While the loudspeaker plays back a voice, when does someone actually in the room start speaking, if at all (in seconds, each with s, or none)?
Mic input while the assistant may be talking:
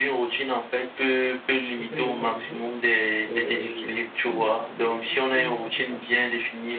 1.7 s